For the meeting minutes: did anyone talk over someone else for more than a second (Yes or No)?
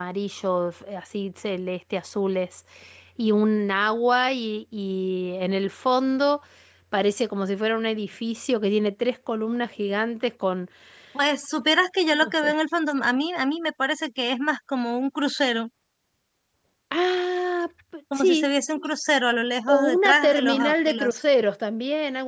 Yes